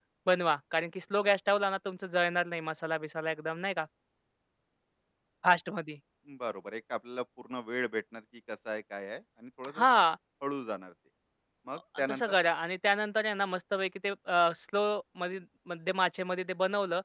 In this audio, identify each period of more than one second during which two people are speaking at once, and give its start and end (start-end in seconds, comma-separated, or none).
none